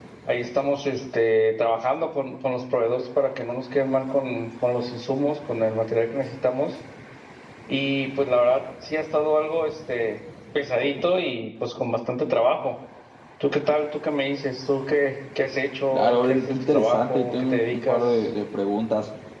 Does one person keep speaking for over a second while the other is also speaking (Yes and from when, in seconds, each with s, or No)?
Yes, from 15.9 s